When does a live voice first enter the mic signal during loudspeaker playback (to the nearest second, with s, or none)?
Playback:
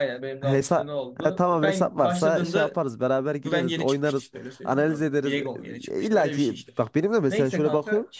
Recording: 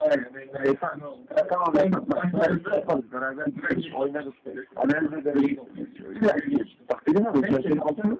none